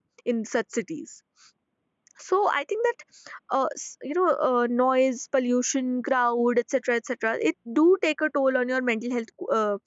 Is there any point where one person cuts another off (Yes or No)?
No